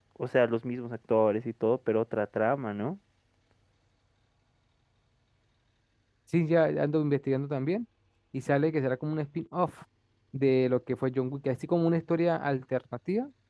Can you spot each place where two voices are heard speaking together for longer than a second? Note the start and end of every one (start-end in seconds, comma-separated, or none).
none